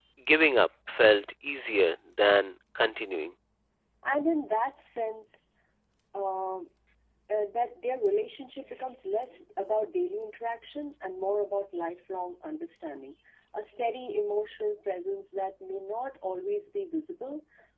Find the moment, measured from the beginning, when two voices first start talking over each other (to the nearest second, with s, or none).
none